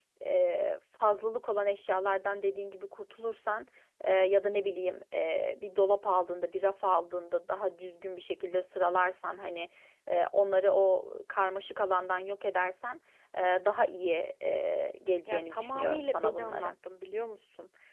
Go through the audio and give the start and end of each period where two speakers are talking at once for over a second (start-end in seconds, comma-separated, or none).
15.3-16.7